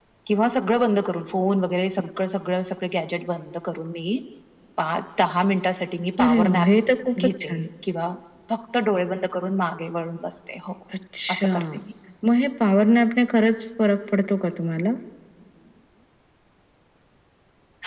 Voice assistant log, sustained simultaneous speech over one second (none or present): none